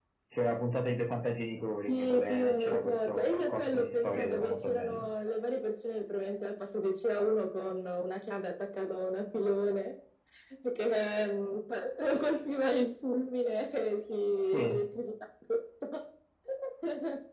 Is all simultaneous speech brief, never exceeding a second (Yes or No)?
No